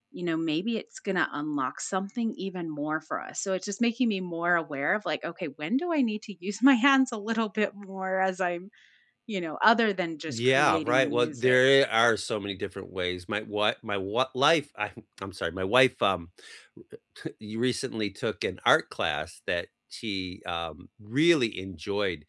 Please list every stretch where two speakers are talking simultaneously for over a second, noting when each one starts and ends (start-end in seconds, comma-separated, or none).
10.3-11.6